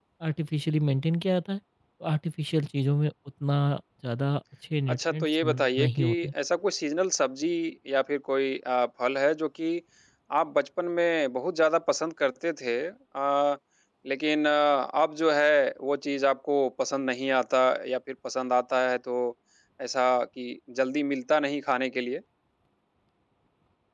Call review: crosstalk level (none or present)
present